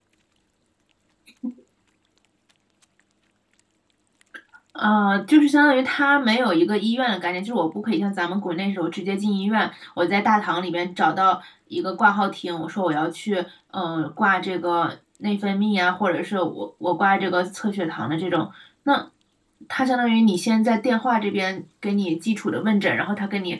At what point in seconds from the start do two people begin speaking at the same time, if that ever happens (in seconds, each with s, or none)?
none